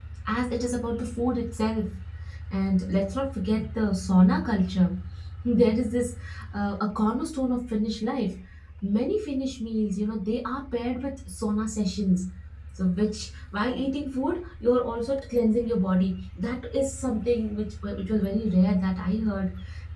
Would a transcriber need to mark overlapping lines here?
No

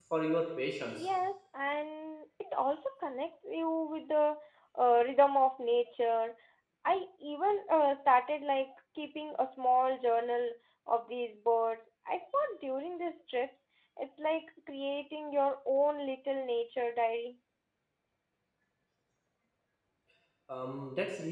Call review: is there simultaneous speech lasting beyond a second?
No

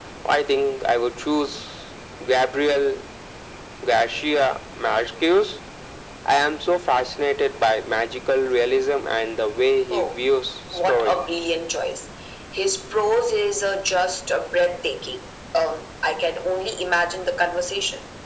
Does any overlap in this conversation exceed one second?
No

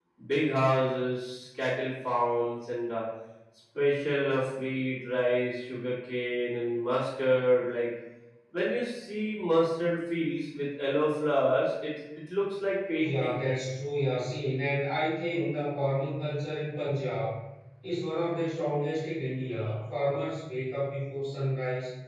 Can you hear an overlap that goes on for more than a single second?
No

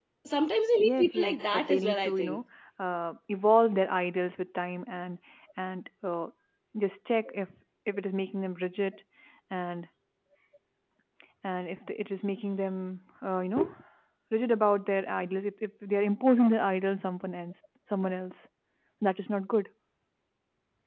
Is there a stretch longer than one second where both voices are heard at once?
Yes, from 0.8 s

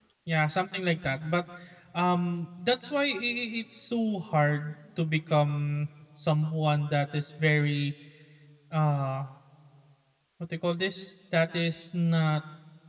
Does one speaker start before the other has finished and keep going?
No

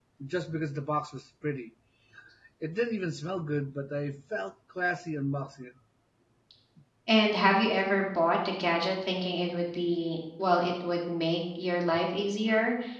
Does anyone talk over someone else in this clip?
No

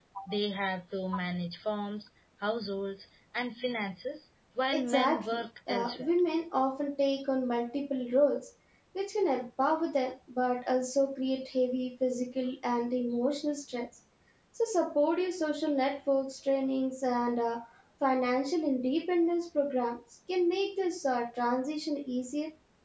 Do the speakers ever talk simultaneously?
Yes, from 4.7 s

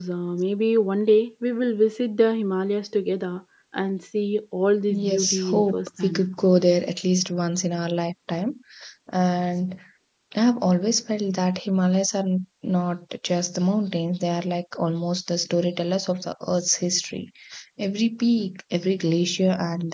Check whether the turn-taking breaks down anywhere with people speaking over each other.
Yes, from 4.9 s

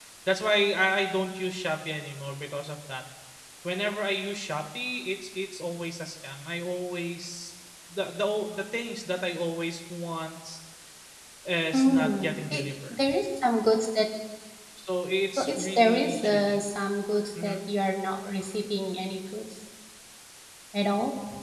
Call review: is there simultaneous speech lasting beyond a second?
Yes, from 11.7 s

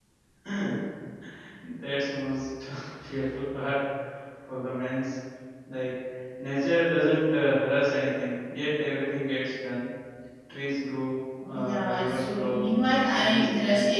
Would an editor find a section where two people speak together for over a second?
Yes, from 11.5 s

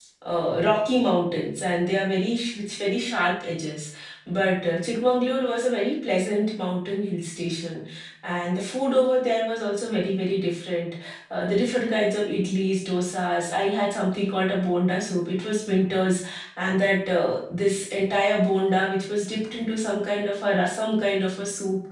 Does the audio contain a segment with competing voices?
No

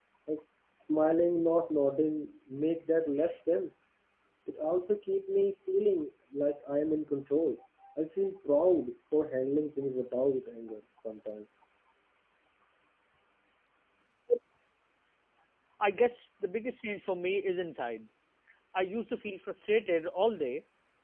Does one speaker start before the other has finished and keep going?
No

